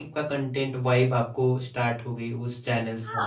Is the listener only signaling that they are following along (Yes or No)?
No